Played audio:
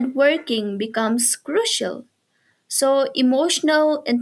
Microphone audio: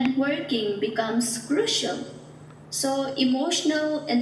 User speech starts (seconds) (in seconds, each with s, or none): none